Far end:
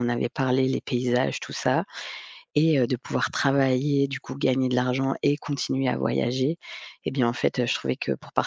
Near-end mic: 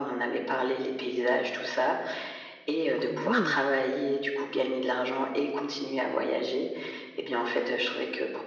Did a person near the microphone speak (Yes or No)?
Yes